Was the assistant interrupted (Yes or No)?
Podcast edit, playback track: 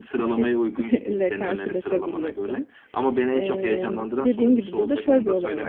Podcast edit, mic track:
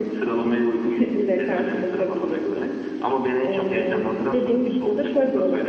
No